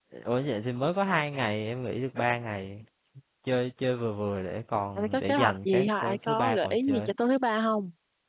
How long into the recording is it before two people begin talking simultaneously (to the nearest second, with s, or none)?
5 s